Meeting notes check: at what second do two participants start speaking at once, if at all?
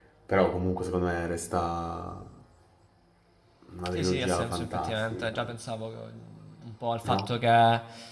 4 s

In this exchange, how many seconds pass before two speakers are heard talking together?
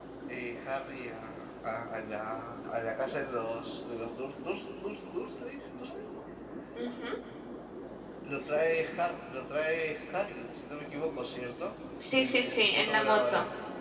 12 s

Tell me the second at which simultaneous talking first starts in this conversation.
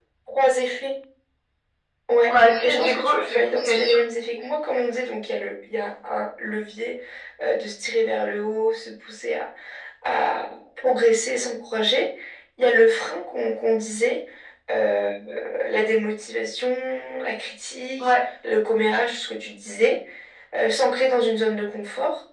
2 s

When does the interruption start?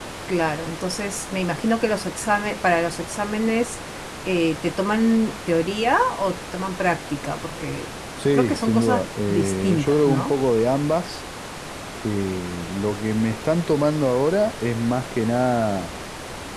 8 s

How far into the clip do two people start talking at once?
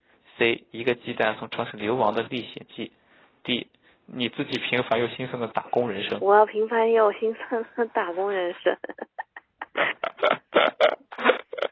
none

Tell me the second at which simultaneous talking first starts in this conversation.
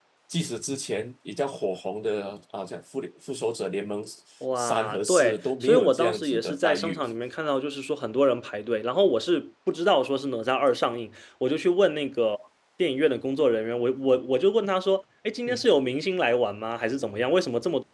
5 s

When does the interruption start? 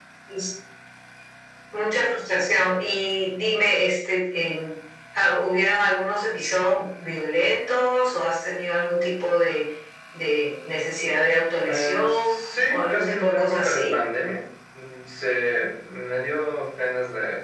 12 s

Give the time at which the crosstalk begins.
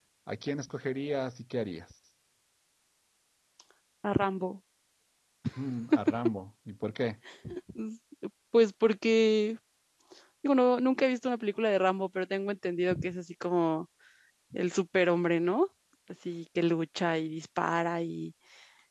none

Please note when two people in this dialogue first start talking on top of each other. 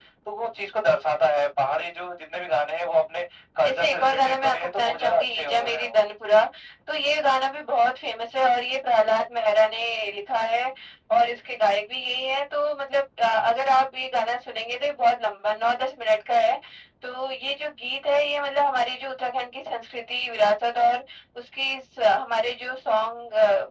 4 s

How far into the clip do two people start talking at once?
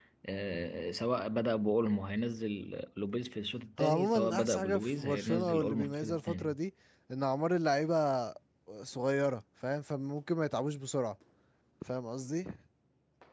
4 s

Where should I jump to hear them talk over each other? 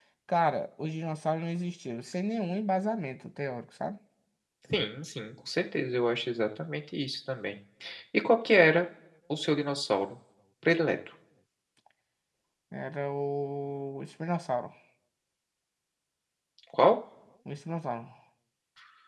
none

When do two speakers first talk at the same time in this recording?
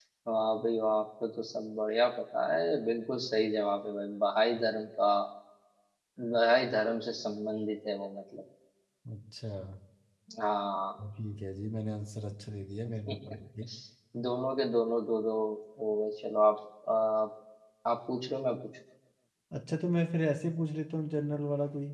none

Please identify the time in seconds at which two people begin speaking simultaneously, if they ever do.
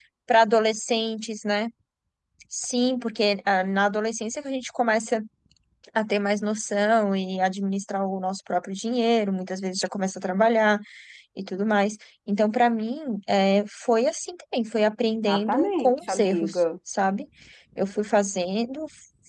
15 s

